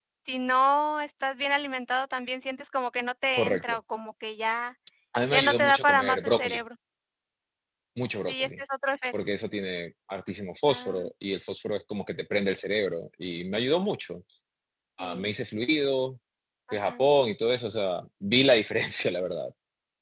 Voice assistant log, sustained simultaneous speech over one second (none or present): present